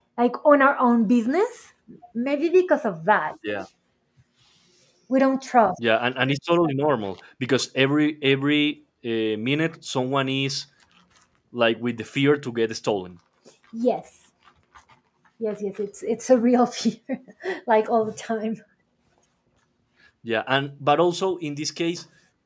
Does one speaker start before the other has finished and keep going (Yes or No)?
No